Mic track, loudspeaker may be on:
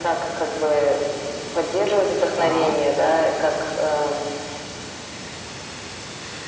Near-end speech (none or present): present